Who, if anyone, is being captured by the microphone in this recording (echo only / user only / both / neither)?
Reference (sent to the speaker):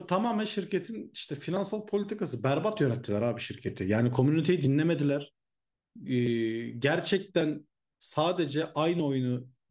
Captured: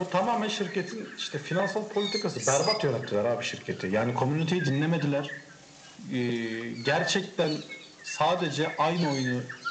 echo only